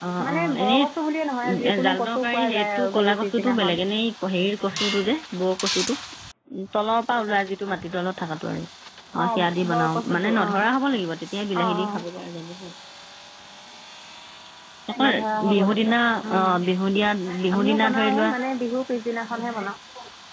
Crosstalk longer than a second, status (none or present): present